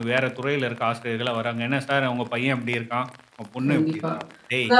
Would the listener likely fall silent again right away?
No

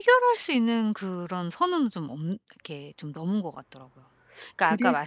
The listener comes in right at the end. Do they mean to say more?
Yes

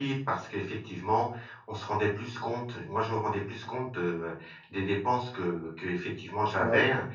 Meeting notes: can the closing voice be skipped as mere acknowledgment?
Yes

